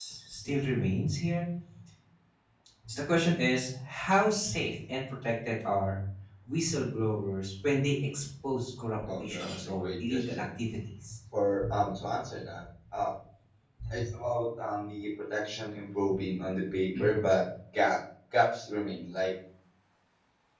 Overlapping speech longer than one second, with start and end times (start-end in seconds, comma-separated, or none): 9.1-10.4